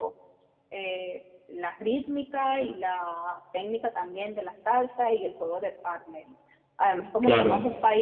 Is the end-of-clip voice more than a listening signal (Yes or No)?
No